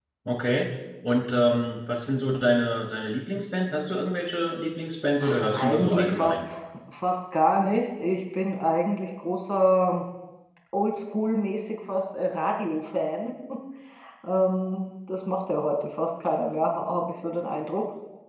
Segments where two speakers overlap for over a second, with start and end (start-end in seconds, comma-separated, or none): 5.2-6.5